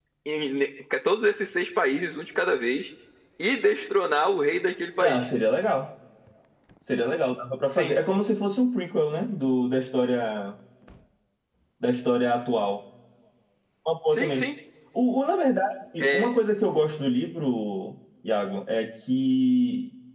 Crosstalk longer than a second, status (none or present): none